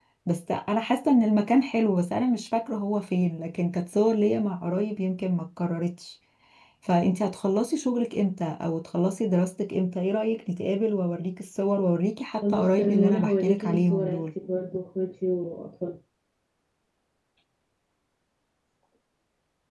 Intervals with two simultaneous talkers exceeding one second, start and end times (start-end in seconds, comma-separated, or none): 12.4-14.3